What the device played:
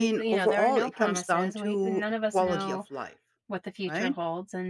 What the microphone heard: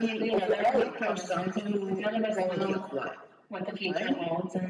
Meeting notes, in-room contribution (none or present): none